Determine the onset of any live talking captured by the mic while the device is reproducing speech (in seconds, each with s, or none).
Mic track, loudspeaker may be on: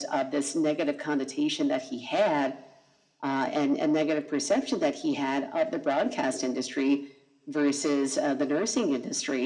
none